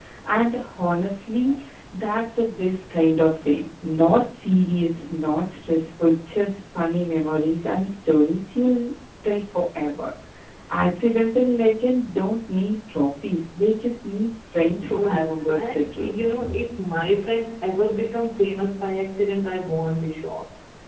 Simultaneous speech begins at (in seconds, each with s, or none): 14.9 s